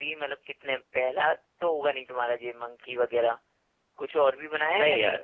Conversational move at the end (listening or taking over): taking over